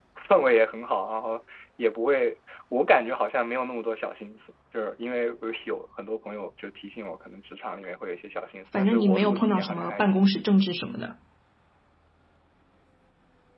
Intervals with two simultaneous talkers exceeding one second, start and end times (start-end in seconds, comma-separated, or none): 8.7-10.3